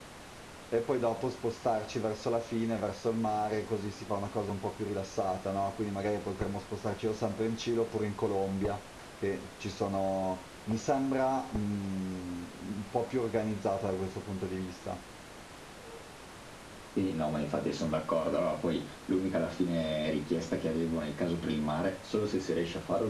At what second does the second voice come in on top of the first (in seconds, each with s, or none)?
none